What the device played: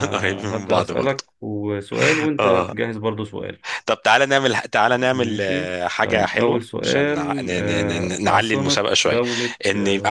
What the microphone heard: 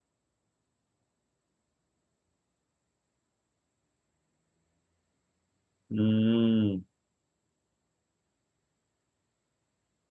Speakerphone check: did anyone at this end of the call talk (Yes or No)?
Yes